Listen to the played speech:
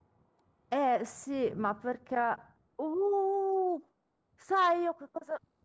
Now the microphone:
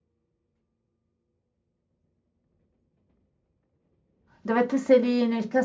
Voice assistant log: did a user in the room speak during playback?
Yes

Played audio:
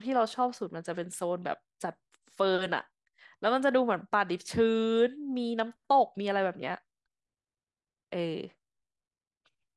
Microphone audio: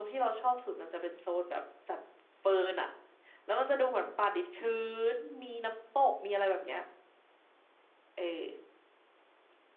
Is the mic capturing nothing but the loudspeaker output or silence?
Yes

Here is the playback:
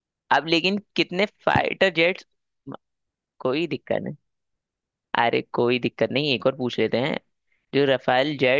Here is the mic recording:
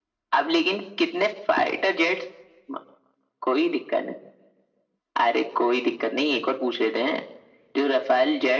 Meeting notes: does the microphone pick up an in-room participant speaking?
No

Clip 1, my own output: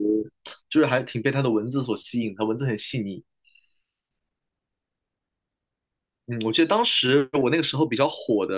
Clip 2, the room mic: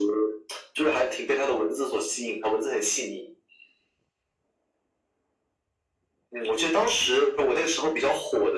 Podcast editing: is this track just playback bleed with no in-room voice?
Yes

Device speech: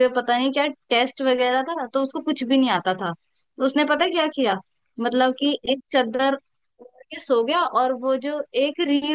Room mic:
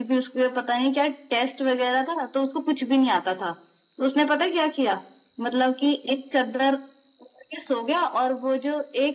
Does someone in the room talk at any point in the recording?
No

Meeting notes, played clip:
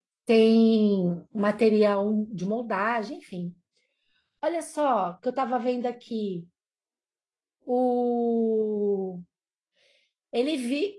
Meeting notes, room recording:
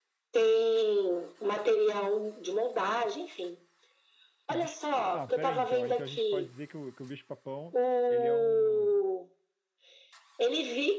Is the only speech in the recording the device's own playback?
No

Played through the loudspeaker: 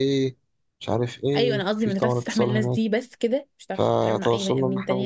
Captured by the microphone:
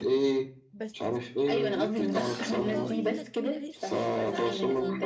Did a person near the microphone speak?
Yes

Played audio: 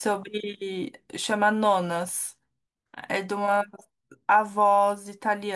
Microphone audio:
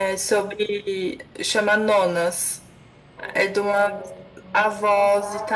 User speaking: Yes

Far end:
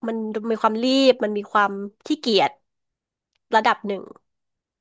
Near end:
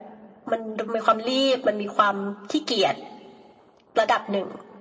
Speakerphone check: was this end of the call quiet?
Yes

